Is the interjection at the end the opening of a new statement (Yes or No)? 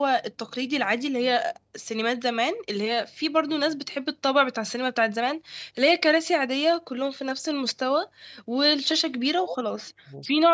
No